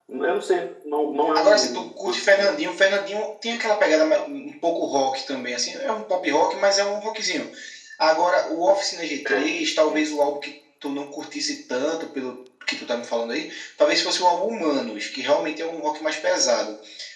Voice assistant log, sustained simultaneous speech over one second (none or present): present